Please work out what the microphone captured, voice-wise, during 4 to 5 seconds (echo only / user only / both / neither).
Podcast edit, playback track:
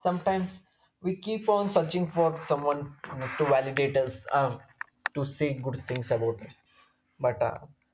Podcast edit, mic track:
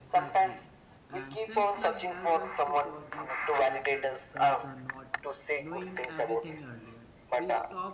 both